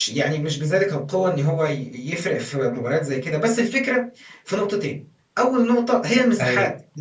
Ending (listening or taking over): listening